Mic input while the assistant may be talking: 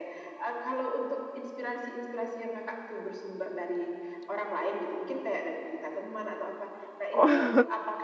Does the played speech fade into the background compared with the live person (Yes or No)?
Yes